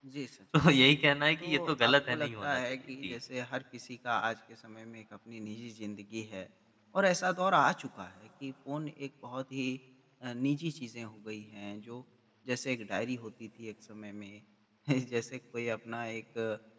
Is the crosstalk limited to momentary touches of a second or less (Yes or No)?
No